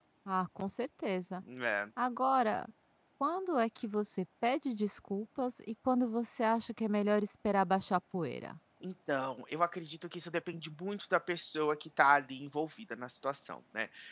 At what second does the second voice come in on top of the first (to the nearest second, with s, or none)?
none